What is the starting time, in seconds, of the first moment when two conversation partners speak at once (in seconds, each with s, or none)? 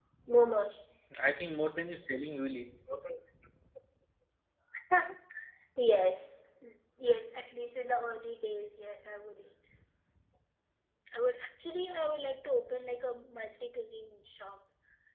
none